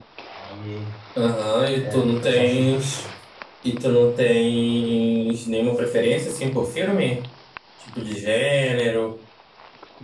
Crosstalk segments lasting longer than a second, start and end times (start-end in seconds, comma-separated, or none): 1.8-3.0